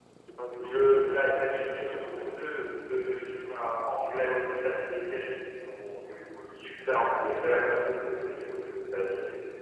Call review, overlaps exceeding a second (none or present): present